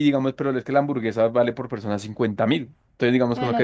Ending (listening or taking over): listening